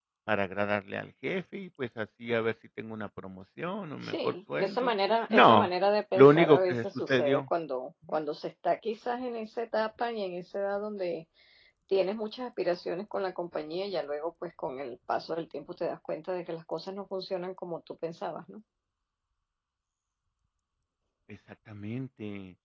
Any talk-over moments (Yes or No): Yes